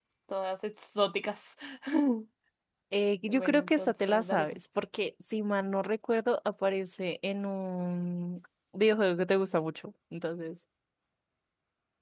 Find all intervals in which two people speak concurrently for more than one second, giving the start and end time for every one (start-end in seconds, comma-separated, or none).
3.3-4.6